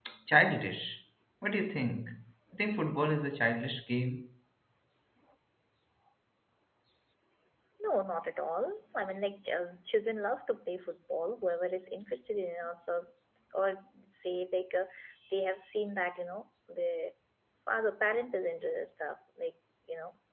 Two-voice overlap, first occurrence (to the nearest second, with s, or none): none